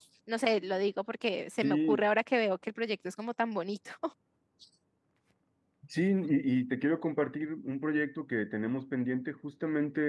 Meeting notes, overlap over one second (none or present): none